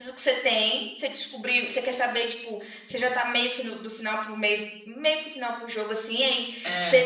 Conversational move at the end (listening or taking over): listening